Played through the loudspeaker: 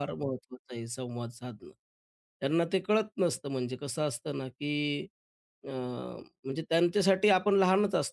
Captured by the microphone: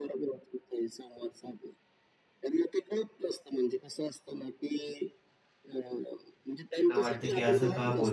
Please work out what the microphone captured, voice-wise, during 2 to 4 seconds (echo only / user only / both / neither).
echo only